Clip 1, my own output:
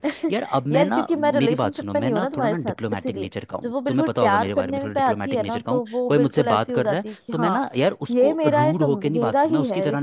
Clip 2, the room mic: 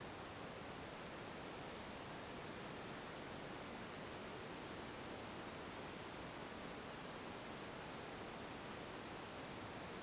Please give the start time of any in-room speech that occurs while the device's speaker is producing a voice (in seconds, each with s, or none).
none